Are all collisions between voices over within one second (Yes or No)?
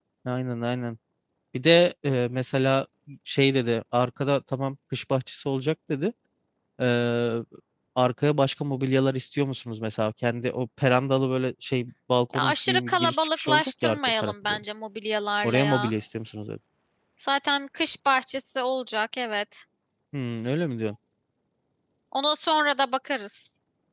No